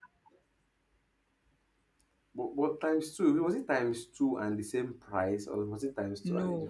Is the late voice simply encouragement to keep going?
No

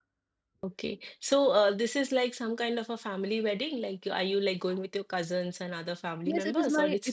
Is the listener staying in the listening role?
No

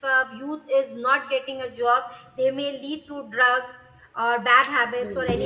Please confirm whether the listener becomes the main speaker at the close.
Yes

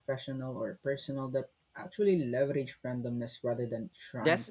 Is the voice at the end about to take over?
Yes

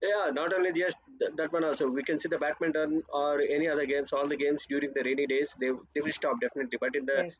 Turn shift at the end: No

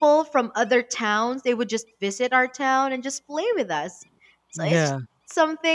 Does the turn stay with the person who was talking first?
Yes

